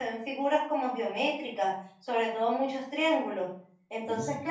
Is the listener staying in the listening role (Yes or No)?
Yes